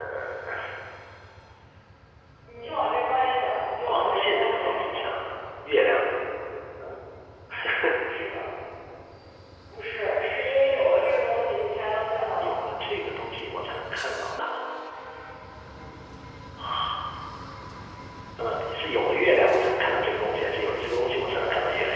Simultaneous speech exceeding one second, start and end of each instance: 3.9-5.1

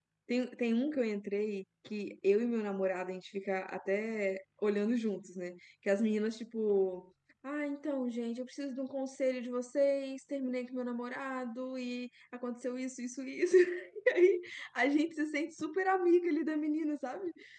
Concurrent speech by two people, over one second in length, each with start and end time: none

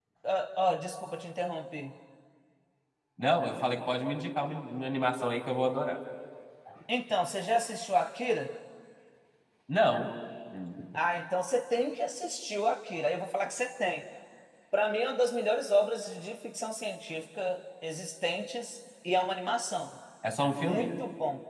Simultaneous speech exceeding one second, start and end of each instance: none

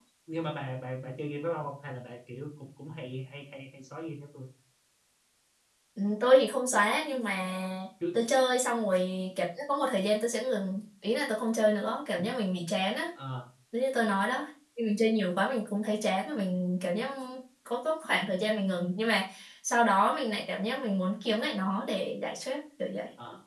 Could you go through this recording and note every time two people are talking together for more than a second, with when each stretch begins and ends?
none

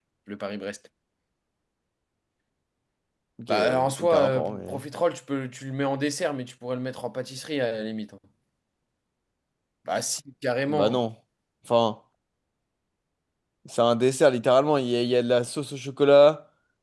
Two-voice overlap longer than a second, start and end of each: 3.5-4.8

